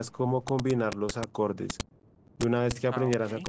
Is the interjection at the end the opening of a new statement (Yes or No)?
No